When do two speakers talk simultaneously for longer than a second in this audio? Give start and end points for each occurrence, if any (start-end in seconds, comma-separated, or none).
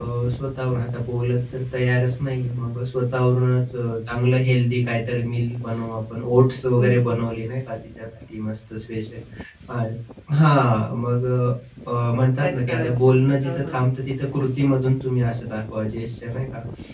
12.5-13.8